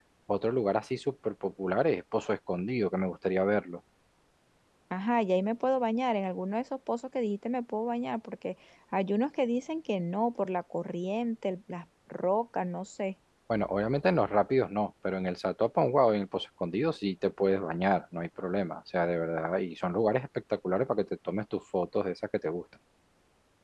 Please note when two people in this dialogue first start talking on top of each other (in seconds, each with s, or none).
none